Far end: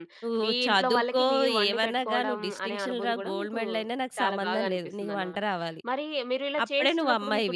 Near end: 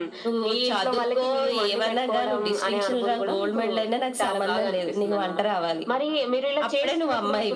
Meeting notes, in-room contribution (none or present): none